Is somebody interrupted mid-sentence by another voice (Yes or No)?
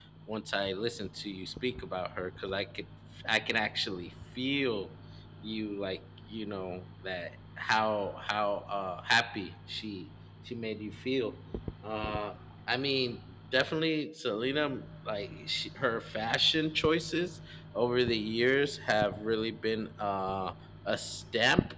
No